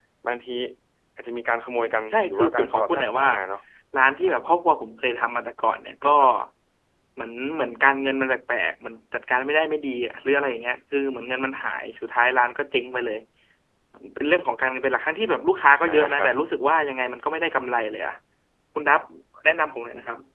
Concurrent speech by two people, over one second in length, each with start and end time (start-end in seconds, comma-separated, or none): 1.7-3.3